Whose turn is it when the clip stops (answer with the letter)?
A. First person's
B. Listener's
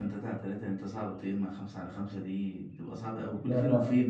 A